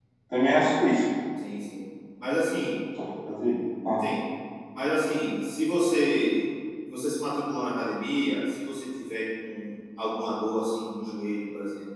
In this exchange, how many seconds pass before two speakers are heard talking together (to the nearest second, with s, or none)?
none